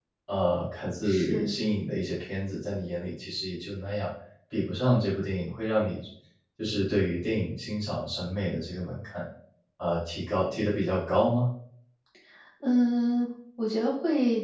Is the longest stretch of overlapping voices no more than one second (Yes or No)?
Yes